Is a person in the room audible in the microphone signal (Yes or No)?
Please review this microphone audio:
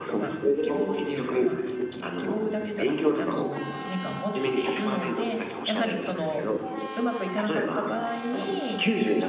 Yes